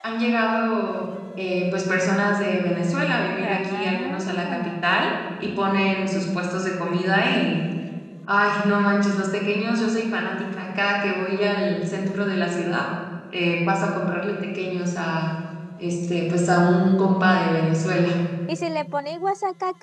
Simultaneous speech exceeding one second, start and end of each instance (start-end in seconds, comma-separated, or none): 3.4-4.7